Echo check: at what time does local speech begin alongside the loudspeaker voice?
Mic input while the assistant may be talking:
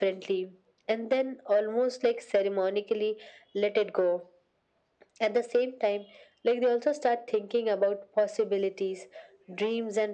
none

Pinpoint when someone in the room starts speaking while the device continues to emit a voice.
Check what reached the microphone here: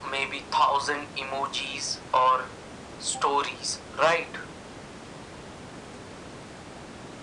none

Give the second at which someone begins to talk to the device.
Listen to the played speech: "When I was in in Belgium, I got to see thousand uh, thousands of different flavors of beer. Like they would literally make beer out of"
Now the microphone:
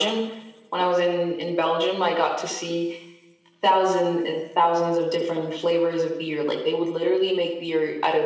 none

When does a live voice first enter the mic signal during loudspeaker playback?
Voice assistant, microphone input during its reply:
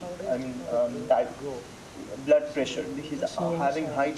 3 s

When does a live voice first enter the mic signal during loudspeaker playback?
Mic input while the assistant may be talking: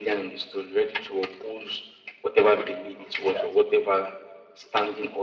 3 s

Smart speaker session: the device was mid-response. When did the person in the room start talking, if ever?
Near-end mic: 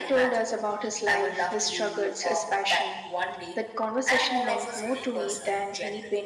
none

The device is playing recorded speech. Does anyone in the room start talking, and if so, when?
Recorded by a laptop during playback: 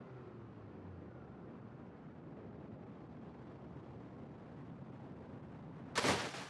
none

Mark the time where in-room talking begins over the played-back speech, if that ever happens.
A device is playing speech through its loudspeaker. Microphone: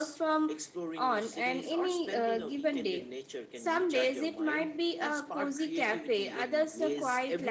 none

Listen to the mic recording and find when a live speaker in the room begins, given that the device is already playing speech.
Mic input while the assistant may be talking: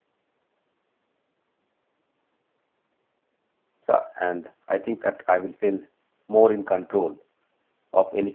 4 s

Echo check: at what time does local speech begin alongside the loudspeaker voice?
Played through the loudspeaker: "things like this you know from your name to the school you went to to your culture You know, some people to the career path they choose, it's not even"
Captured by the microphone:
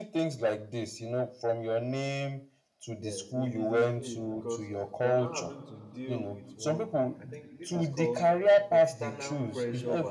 3 s

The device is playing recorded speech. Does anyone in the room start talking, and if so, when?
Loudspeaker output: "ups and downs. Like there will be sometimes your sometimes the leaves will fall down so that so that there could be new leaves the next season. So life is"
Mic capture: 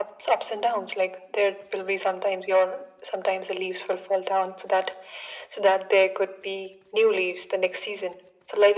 none

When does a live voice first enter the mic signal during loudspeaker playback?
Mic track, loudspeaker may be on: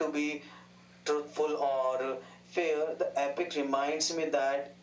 none

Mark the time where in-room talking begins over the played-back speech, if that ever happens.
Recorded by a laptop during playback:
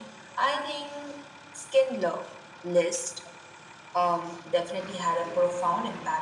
none

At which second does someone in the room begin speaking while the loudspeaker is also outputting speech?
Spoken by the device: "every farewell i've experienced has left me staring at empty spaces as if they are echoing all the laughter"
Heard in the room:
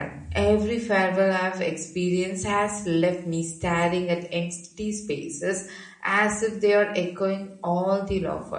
none

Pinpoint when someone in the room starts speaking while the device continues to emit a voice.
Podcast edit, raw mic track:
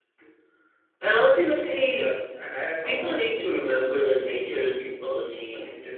none

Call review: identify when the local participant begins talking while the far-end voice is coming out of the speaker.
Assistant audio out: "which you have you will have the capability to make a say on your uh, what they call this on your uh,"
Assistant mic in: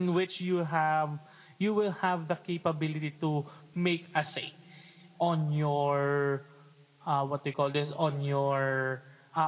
none

